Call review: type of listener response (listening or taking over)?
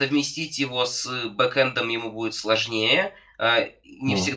listening